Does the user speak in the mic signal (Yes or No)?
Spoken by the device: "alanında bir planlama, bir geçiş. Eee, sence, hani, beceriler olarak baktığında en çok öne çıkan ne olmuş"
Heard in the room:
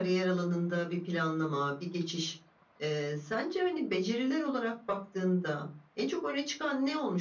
No